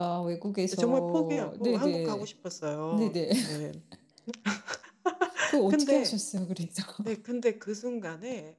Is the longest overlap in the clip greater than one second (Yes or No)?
Yes